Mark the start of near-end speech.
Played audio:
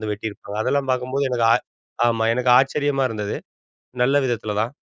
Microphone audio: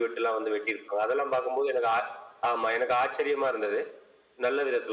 none

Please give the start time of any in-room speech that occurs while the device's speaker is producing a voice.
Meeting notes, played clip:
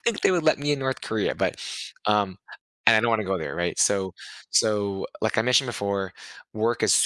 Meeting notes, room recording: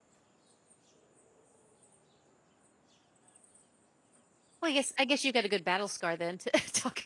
4.6 s

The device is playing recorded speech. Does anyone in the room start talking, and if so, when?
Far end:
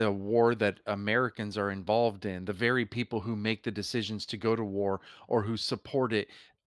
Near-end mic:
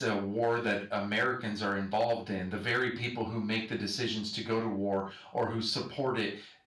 none

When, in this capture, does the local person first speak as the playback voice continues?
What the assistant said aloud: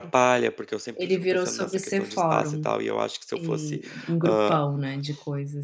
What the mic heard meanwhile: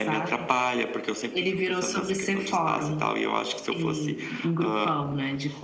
none

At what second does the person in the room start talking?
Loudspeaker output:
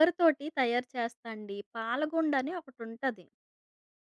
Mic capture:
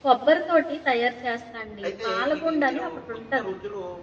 1.9 s

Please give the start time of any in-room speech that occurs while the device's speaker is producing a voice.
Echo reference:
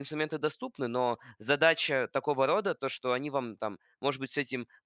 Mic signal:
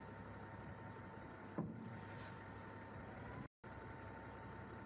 none

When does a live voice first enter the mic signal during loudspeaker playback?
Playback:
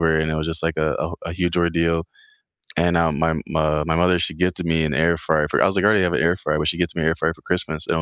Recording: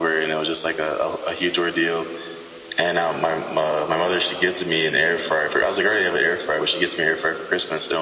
none

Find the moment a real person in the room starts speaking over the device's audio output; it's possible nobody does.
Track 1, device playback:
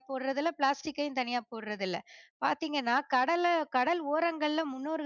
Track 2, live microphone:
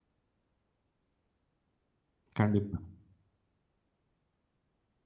2.4 s

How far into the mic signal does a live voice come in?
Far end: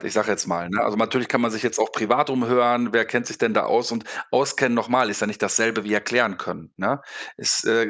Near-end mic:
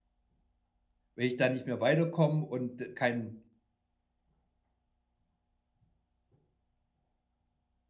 1.1 s

